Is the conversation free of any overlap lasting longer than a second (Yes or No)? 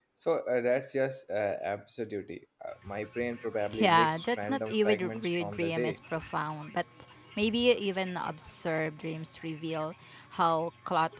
No